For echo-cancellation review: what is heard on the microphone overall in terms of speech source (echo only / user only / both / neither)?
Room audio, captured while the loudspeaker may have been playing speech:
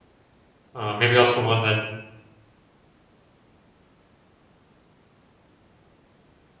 user only